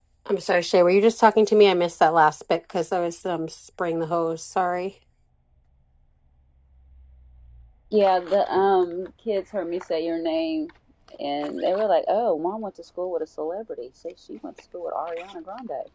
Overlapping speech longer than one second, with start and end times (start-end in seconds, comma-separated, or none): none